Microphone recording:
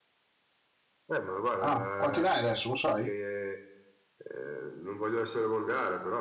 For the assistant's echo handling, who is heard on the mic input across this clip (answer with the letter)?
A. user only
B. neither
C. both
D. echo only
C